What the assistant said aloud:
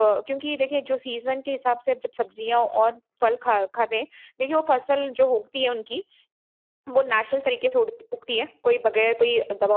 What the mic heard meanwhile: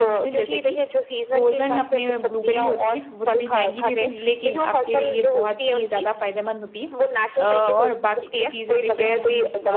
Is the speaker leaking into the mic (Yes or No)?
Yes